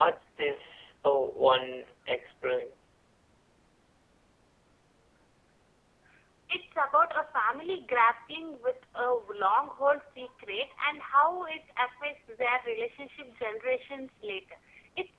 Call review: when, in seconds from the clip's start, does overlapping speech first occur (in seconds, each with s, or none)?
none